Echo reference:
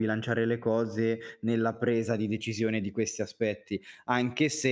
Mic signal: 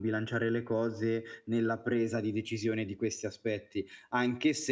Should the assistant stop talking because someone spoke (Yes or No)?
No